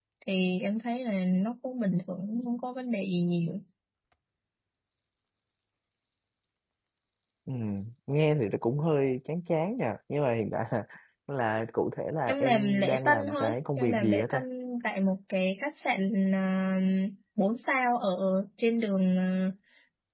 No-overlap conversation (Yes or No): No